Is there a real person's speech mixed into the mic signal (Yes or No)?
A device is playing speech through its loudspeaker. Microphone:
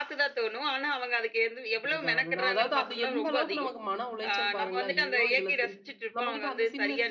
Yes